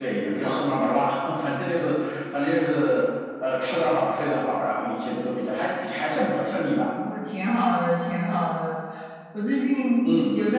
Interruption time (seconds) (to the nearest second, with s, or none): none